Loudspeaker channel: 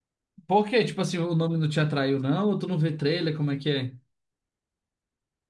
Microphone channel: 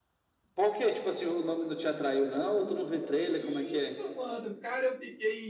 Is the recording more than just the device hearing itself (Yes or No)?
Yes